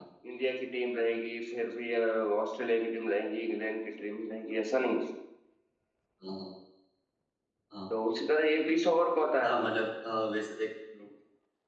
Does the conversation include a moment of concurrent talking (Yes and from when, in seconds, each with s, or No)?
No